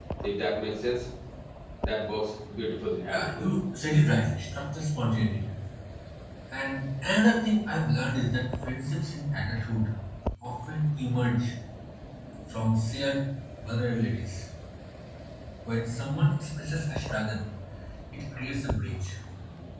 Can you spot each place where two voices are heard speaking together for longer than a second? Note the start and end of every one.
none

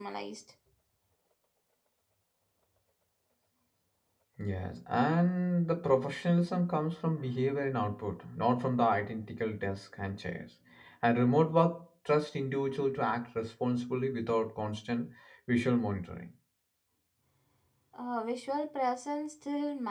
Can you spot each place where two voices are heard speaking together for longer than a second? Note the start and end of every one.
none

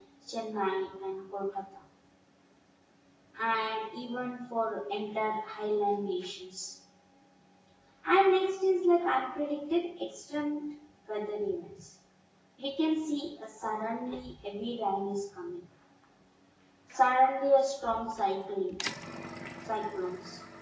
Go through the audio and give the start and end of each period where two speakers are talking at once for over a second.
none

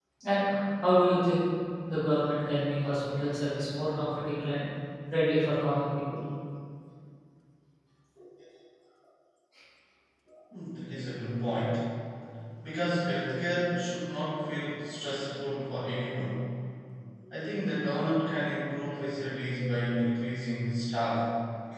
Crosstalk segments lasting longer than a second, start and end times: none

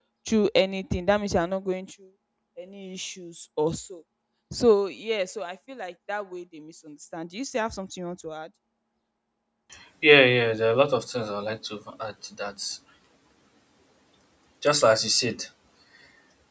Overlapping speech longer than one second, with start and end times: none

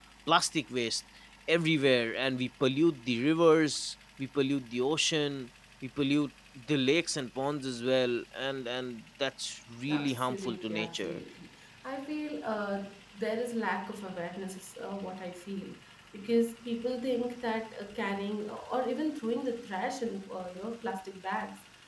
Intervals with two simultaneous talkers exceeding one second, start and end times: 9.9-11.2

